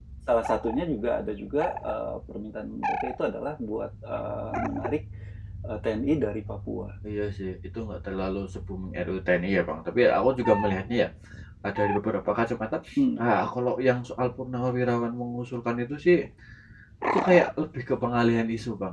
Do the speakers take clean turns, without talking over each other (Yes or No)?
Yes